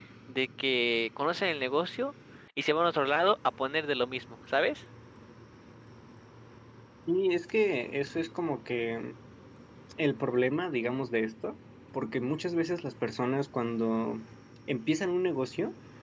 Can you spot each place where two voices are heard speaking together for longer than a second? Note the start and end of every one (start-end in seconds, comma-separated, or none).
none